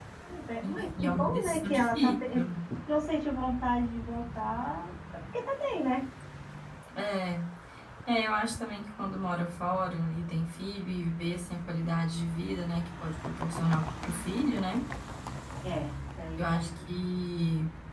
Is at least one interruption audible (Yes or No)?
Yes